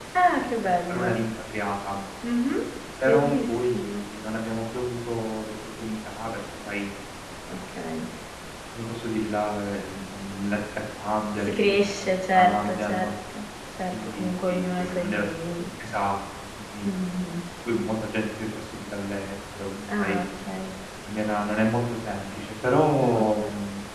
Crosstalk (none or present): present